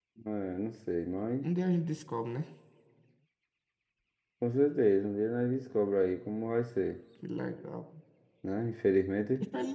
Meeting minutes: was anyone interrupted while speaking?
No

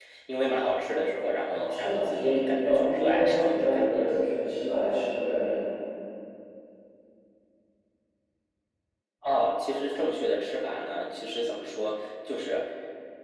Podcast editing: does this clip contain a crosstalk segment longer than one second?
Yes, from 1.5 s

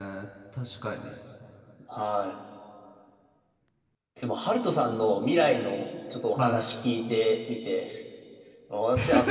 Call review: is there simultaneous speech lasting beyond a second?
No

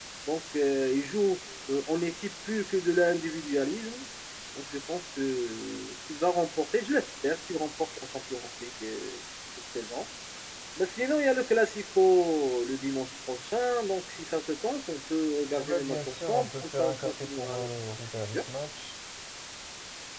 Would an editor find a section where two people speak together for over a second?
Yes, from 15.6 s

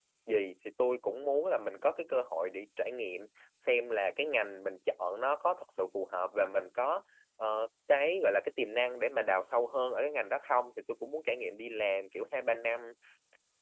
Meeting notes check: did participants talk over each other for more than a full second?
No

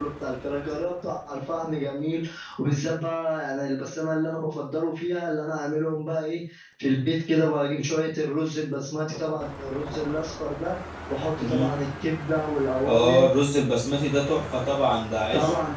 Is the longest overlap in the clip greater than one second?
No

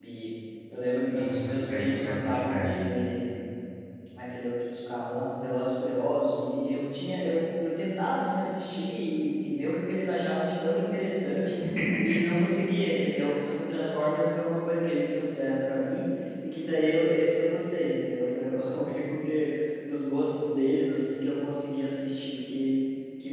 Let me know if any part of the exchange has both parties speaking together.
Yes, from 1.1 s

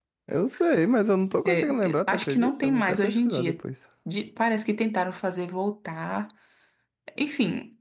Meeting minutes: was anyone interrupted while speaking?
Yes, from 1.4 s

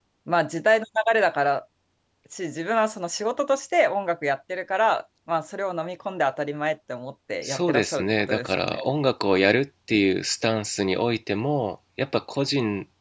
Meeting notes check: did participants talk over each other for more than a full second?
Yes, from 7.4 s

